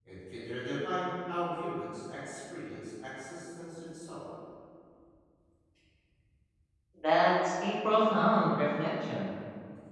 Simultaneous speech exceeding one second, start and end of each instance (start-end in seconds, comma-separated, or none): none